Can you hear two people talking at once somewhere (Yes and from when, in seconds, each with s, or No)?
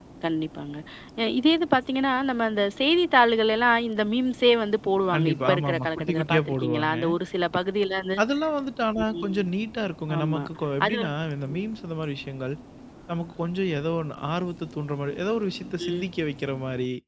Yes, from 5.1 s